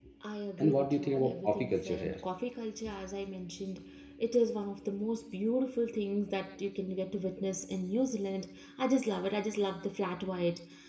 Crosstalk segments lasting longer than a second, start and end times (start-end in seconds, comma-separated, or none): 0.6-2.2